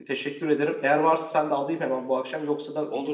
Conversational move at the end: taking over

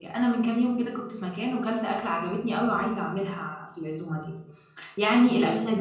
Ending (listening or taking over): listening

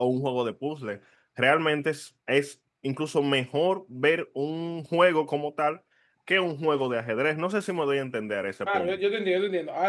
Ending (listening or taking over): taking over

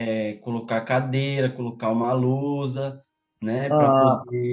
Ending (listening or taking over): listening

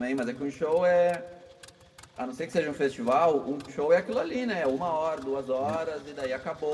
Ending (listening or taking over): listening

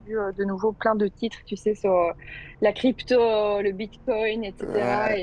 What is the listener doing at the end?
listening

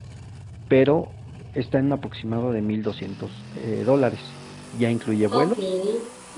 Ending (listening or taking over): listening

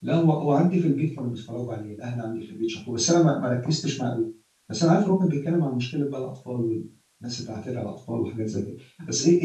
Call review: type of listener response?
listening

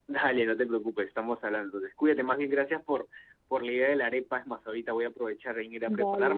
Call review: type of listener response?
listening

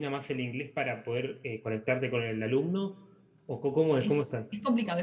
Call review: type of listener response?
taking over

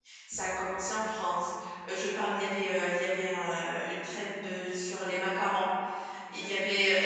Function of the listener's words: listening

